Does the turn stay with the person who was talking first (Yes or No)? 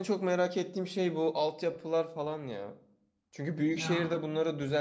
Yes